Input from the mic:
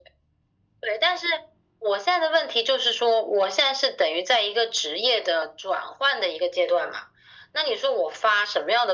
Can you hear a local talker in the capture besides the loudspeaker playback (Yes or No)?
No